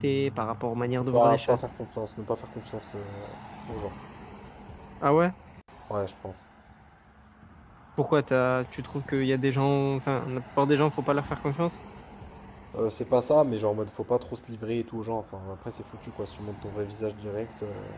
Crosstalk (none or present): present